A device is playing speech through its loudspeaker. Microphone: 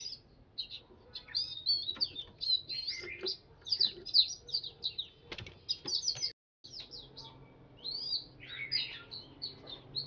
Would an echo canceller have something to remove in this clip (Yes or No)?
No